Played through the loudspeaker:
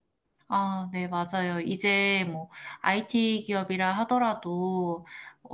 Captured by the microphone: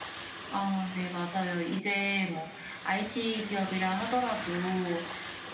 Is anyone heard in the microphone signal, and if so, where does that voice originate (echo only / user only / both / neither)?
echo only